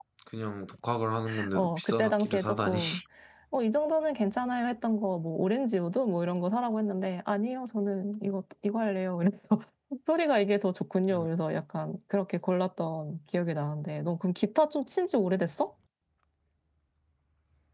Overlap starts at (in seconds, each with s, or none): 1.5 s